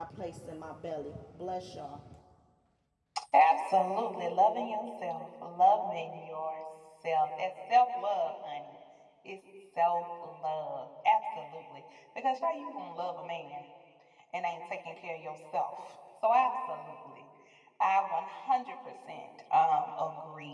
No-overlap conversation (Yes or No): Yes